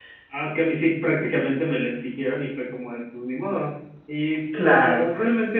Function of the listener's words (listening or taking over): listening